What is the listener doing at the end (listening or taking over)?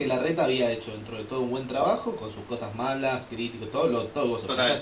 listening